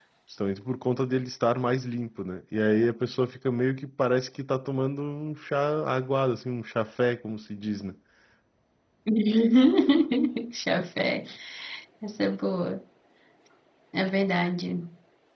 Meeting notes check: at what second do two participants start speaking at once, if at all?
none

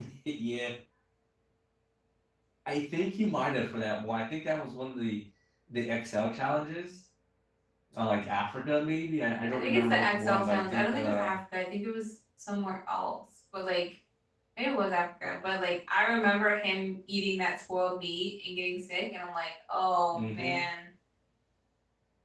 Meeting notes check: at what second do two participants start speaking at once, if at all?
9.5 s

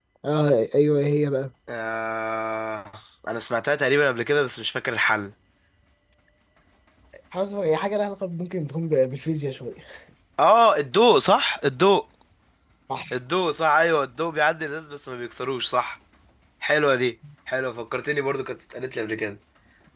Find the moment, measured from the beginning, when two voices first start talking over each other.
none

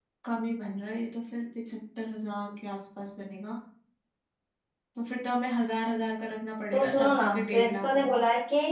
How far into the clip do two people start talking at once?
6.7 s

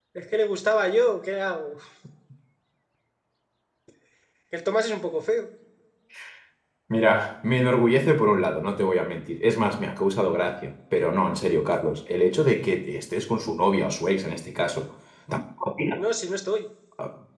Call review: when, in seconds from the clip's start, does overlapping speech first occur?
none

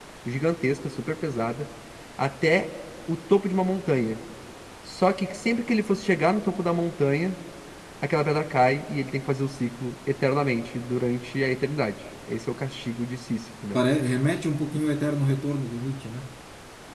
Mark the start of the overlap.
none

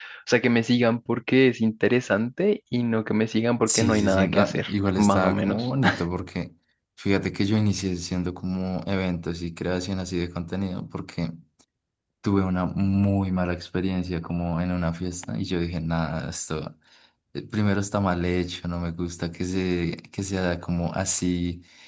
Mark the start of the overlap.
3.7 s

